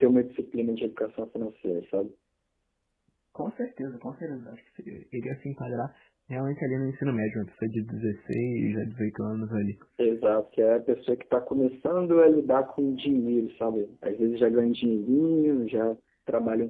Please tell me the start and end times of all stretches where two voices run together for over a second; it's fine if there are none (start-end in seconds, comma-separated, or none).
none